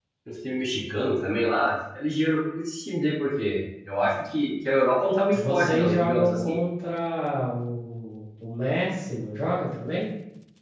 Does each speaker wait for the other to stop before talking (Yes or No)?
No